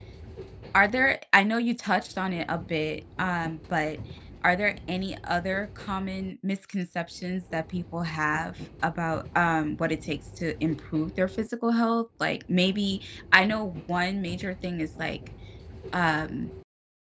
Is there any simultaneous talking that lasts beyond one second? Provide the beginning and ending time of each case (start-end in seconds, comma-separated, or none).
none